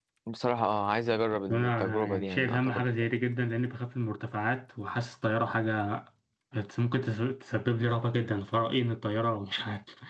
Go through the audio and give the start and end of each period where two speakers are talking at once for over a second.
1.5-2.8

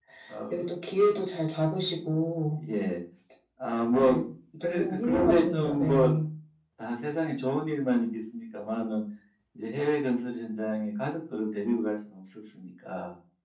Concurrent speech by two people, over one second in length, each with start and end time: 4.6-6.1

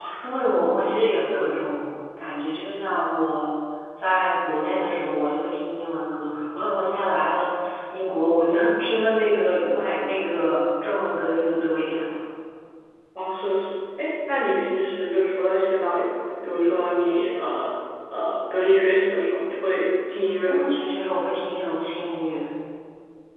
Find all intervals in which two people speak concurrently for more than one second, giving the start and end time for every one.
none

